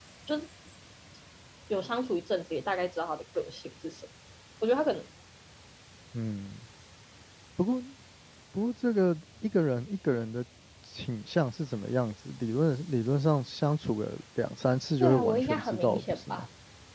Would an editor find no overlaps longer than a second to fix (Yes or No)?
No